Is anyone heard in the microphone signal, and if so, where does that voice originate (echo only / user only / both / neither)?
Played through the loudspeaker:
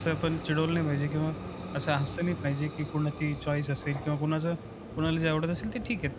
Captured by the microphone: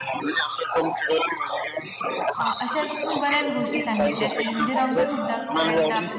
both